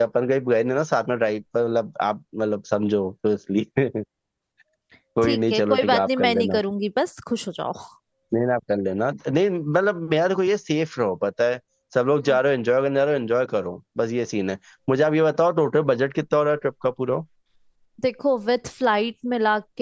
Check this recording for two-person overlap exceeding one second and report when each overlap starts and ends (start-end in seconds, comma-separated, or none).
5.2-6.6